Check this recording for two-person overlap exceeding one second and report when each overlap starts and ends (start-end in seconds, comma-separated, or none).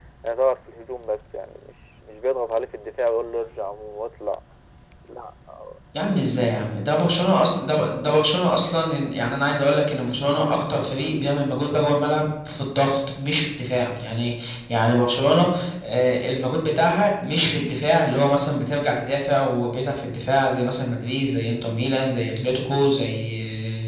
none